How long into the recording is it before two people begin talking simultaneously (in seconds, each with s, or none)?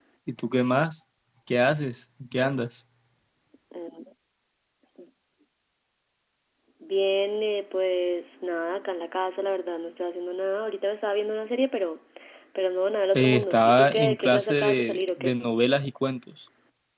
13.1 s